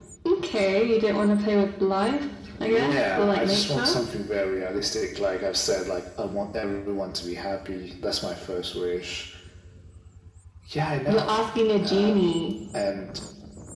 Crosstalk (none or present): present